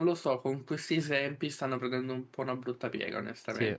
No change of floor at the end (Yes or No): Yes